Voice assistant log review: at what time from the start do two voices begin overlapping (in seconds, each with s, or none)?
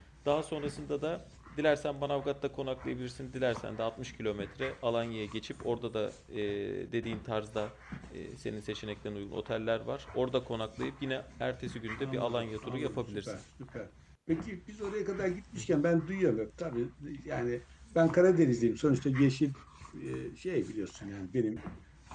12.0 s